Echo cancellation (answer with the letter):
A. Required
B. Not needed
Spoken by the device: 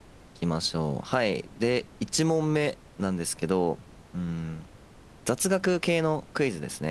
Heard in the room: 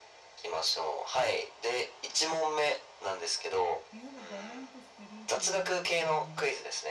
A